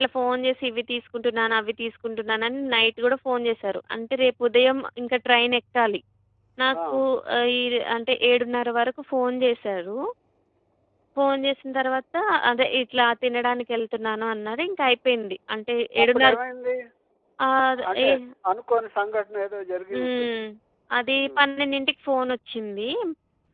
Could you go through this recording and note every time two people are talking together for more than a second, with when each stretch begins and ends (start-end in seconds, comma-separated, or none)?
none